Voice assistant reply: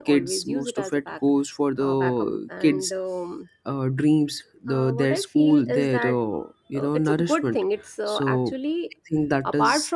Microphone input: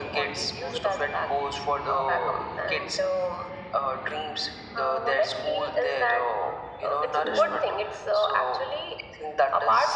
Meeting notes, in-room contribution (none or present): present